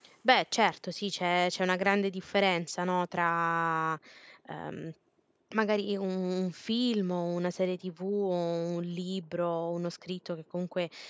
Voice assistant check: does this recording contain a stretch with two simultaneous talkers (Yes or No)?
No